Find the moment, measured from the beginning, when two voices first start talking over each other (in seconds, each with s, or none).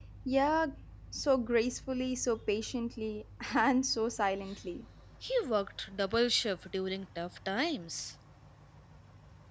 none